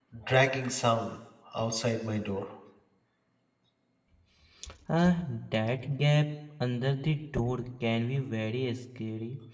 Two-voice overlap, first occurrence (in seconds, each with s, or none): none